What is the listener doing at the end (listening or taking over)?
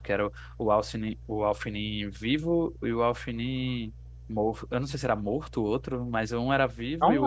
listening